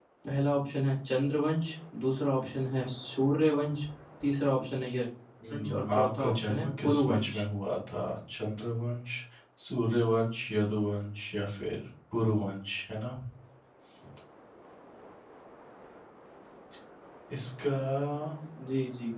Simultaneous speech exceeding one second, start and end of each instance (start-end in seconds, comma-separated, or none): 5.5-7.4